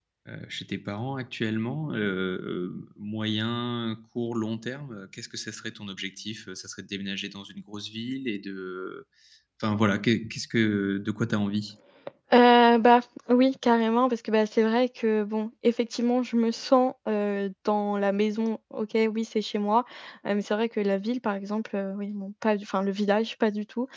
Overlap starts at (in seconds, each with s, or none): none